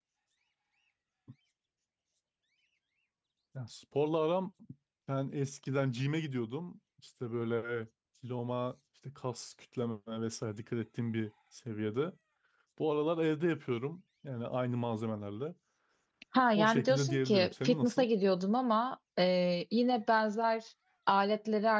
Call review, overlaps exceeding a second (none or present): present